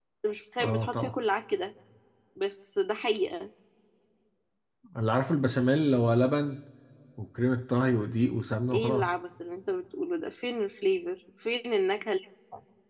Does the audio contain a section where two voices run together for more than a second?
No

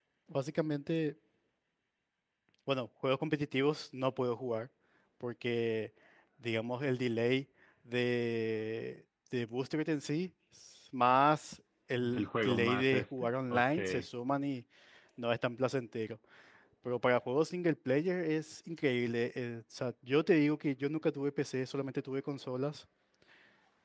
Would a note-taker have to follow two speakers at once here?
Yes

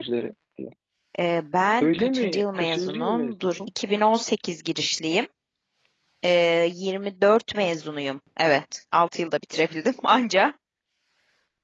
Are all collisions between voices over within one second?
No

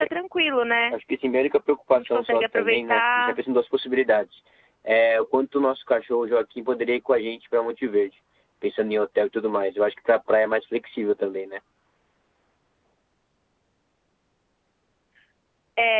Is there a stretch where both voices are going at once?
Yes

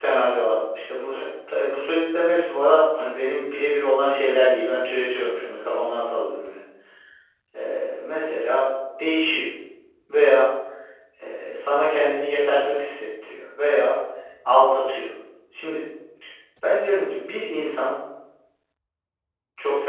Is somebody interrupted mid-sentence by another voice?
No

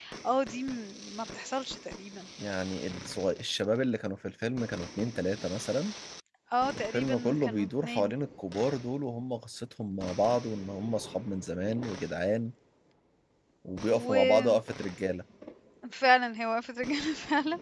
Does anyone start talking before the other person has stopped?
Yes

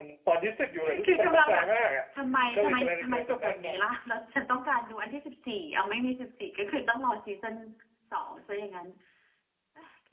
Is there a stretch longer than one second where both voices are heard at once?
Yes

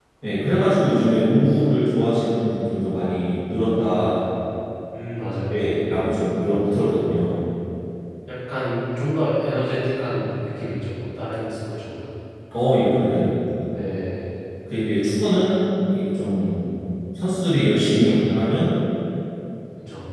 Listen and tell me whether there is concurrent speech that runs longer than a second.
No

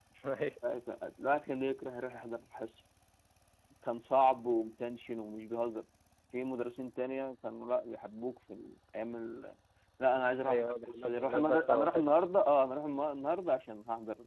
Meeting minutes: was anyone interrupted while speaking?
Yes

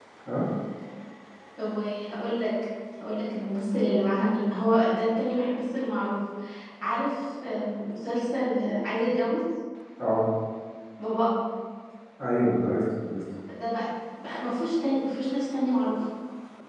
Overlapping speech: No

